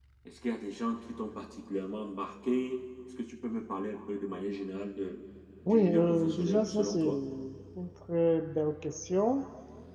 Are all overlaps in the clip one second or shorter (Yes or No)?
No